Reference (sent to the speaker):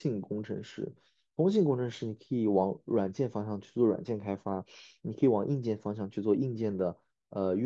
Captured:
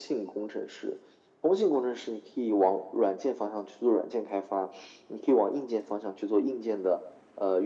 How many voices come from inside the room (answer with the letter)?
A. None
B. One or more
A